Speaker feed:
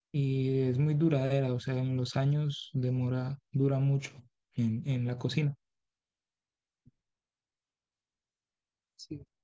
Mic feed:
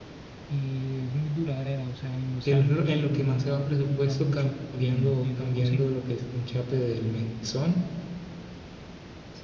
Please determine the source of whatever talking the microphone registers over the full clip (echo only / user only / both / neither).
both